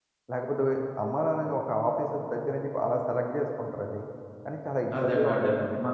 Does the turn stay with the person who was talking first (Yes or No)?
No